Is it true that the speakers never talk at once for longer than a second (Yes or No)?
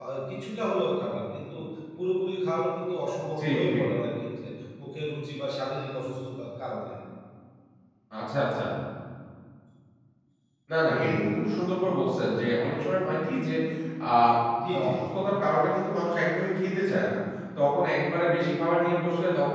Yes